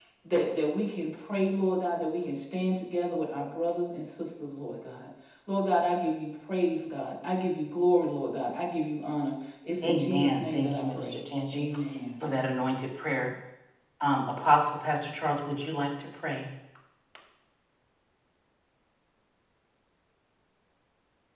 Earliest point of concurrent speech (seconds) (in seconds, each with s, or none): 9.8 s